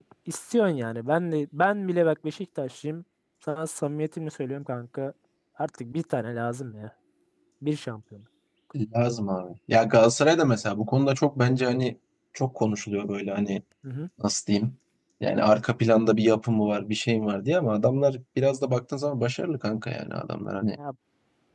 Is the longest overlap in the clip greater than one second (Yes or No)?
No